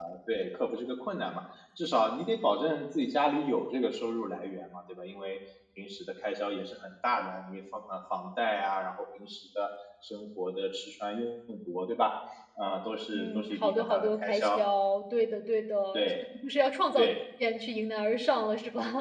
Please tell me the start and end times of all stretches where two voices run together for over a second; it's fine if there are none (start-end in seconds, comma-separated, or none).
13.1-14.6